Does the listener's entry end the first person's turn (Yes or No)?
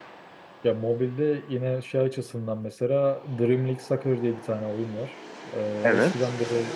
No